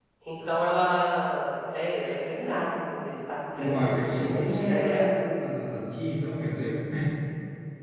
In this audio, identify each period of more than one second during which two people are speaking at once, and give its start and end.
3.6-5.1

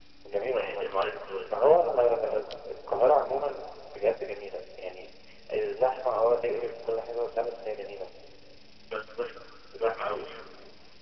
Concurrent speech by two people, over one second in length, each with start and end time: none

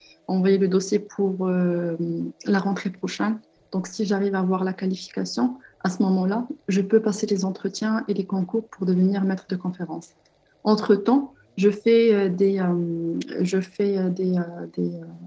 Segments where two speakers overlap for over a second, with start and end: none

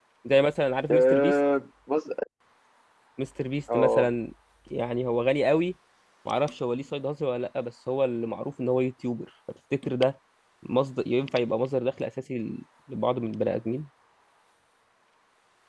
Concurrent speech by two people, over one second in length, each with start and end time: none

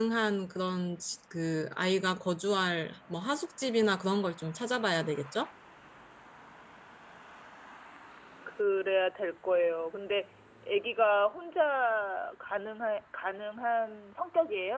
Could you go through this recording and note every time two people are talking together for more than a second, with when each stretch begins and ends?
none

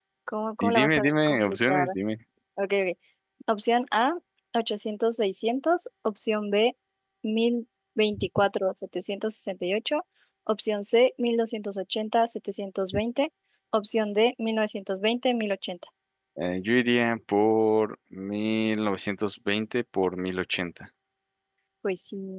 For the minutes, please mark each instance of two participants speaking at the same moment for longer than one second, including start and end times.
0.6-1.9

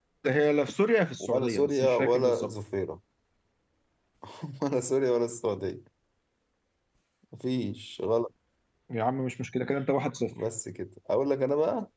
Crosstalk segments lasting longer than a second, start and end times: 1.2-2.5

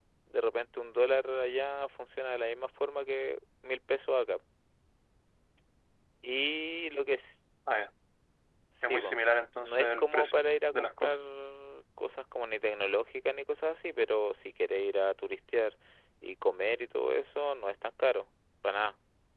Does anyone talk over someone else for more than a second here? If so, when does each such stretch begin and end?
9.6-11.2

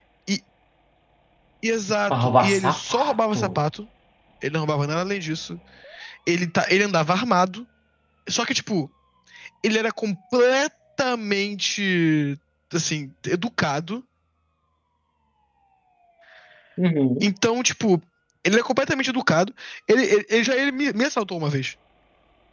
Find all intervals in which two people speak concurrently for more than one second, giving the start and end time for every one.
2.1-3.5

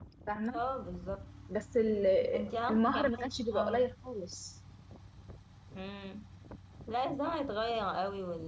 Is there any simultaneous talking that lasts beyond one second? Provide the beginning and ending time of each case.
2.7-3.9

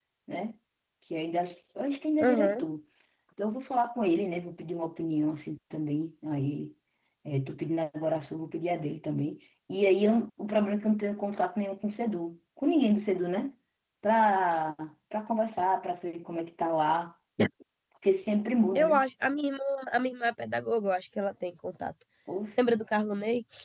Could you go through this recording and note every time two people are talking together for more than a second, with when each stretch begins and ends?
none

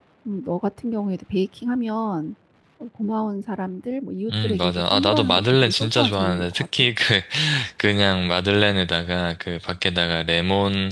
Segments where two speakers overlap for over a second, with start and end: 4.3-6.9

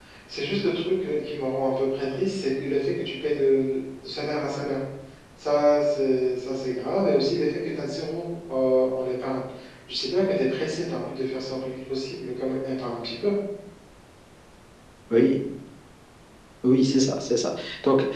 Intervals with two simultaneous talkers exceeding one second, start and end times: none

